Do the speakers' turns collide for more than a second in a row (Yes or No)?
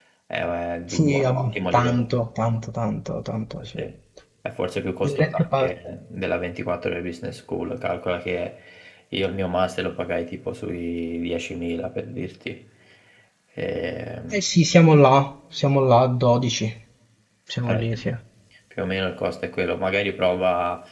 Yes